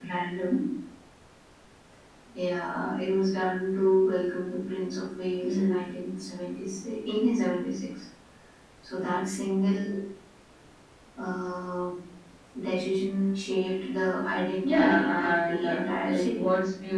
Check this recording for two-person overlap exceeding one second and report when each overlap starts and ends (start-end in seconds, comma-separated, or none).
14.6-16.4